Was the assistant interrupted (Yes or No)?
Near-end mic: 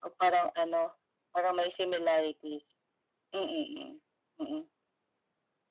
No